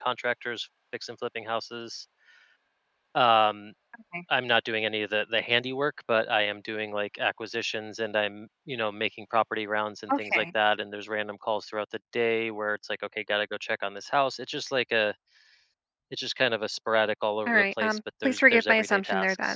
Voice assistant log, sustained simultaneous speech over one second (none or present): present